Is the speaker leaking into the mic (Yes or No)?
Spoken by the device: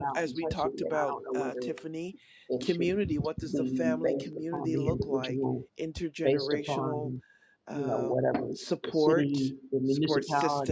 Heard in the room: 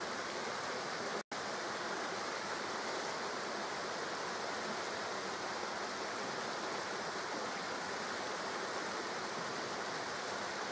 No